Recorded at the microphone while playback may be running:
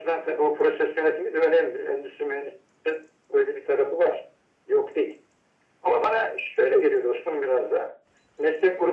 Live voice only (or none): none